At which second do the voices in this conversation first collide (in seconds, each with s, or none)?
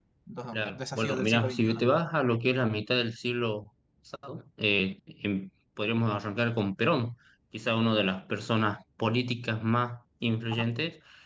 0.5 s